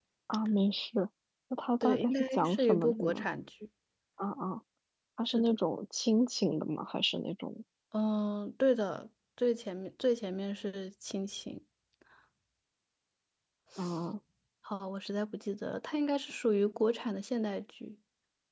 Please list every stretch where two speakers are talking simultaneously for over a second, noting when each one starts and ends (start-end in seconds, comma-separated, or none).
1.8-3.2